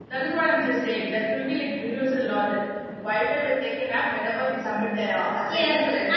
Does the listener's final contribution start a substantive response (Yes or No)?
Yes